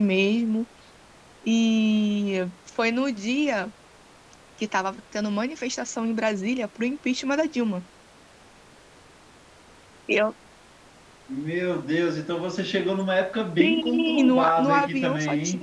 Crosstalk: present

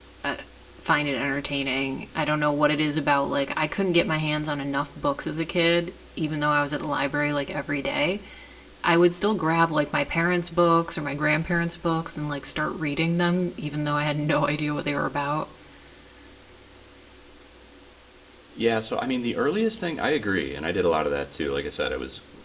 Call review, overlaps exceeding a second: none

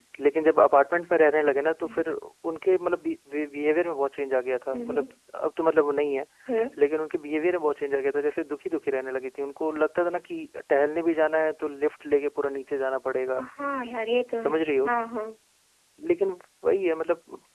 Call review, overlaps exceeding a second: none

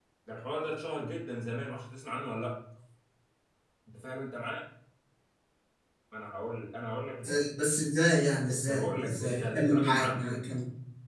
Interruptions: present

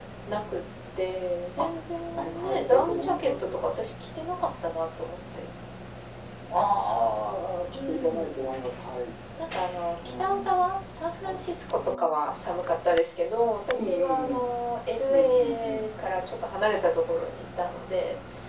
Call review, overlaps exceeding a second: present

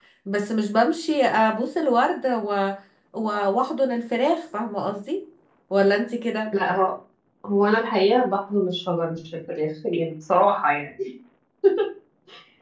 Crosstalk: none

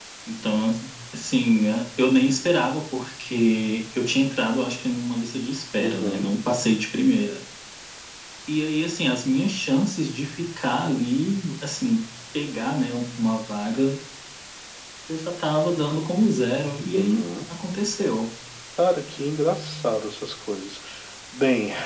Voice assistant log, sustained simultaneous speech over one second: none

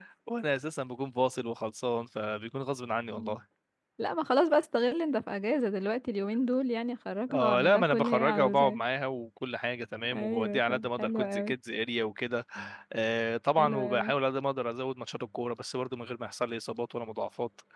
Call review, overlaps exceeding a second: present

